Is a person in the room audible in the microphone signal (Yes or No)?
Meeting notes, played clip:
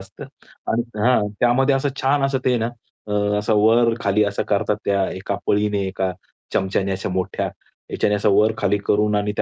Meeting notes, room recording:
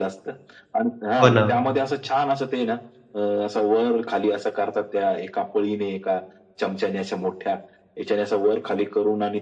Yes